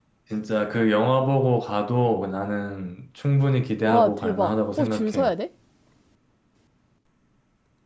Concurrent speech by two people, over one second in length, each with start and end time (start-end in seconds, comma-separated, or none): 3.8-5.3